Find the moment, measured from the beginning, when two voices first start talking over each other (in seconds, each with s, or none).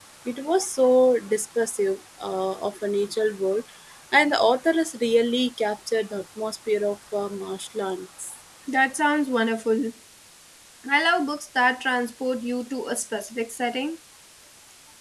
none